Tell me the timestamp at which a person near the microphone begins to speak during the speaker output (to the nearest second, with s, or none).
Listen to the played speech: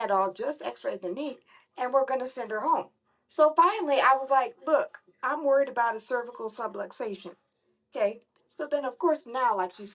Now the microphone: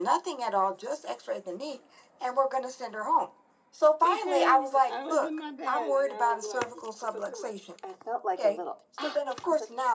4 s